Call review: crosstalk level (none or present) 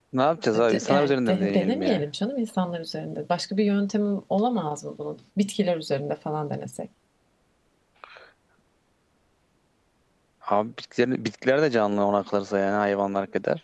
present